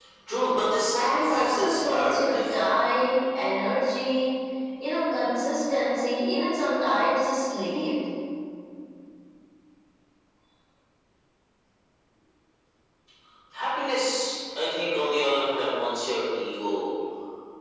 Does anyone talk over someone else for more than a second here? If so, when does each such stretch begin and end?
1.0-2.8

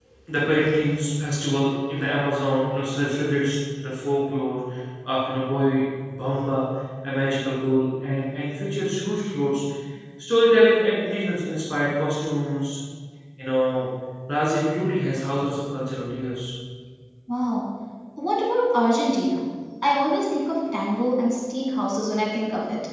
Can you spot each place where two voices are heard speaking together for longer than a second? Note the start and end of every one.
none

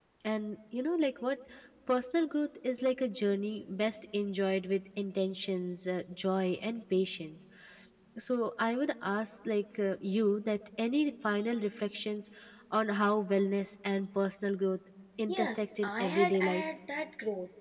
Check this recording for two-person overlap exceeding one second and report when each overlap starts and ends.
15.3-16.6

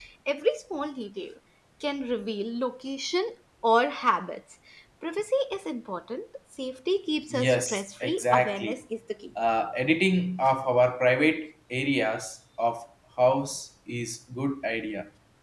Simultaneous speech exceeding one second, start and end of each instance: 7.3-8.8

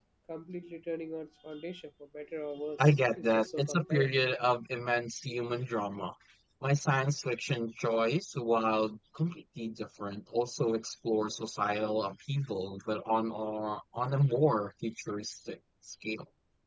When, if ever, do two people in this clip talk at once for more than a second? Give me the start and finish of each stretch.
2.8-4.1

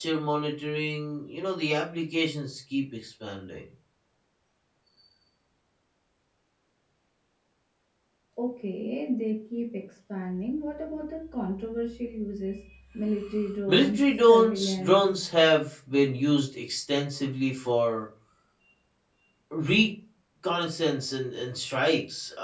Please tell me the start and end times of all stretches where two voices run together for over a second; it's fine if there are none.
13.7-15.2

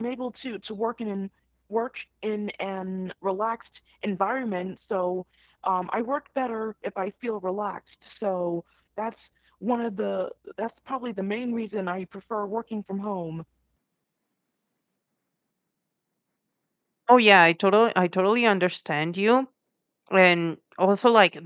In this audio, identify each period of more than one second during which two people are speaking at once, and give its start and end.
none

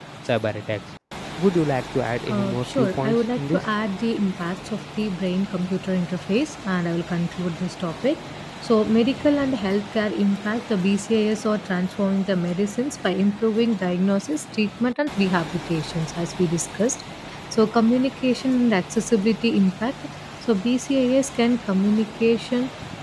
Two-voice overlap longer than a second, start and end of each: 2.3-3.6

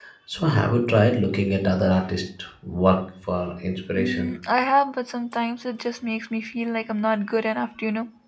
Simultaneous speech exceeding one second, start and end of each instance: none

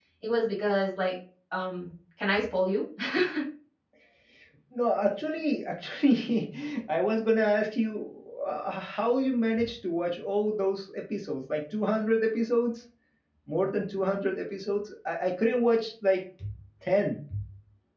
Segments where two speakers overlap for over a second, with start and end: none

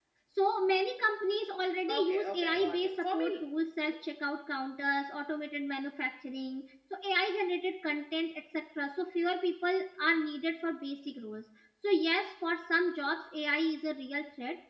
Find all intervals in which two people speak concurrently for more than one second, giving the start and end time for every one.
1.9-3.4

